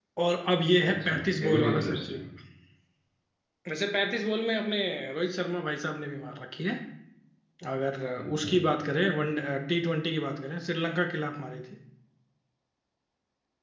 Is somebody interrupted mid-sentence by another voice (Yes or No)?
Yes